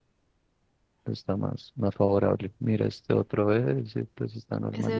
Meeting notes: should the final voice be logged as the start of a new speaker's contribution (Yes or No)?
Yes